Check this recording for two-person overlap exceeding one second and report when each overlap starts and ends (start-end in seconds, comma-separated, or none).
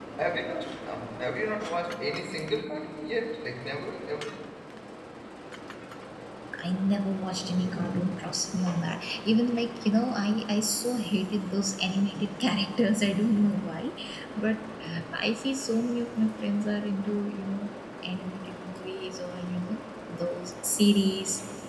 none